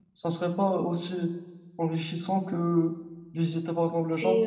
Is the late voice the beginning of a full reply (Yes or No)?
Yes